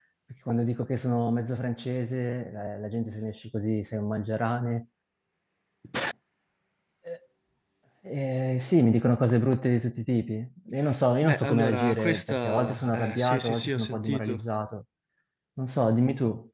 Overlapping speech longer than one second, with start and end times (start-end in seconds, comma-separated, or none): 11.2-14.4